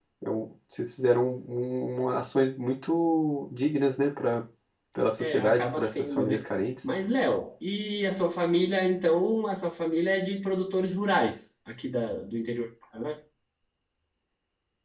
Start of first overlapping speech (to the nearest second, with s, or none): 5 s